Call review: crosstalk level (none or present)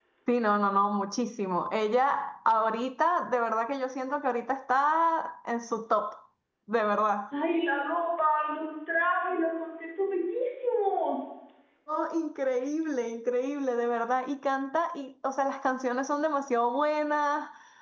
none